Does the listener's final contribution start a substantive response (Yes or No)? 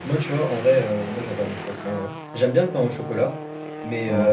No